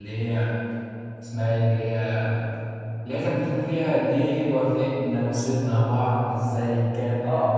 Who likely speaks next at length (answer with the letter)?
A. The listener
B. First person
A